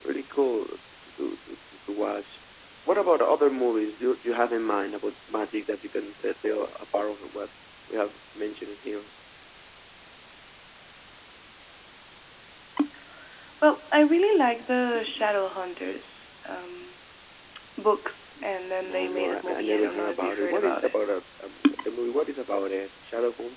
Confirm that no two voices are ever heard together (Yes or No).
No